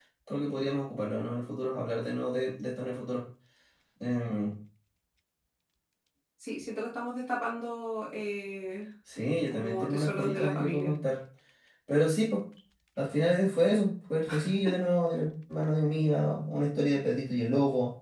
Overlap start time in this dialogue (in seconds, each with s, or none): 9.5 s